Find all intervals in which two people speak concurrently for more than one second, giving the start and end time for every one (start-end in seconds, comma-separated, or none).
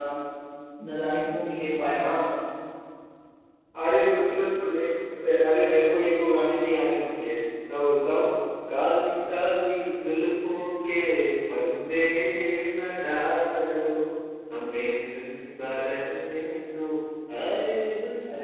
none